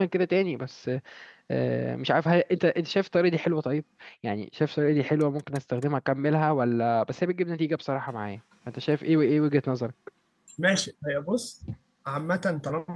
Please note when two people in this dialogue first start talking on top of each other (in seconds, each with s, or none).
none